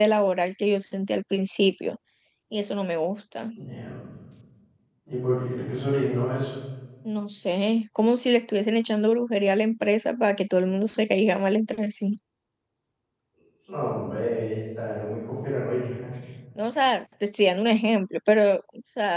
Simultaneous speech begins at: none

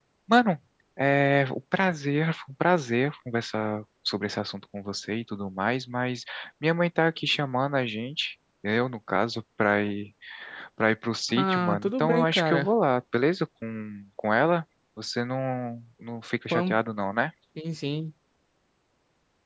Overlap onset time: 11.3 s

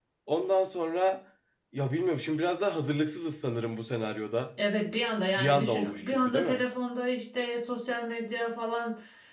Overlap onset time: 5.4 s

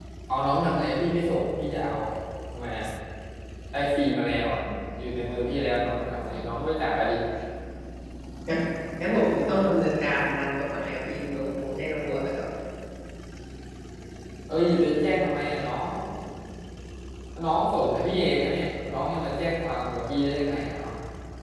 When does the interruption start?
none

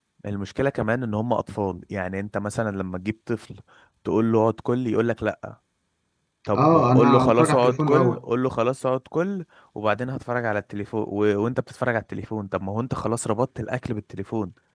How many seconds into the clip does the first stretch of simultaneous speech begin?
6.5 s

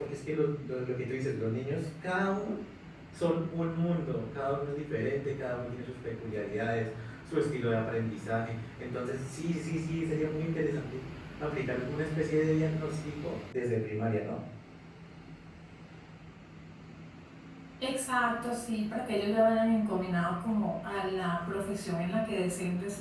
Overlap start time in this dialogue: none

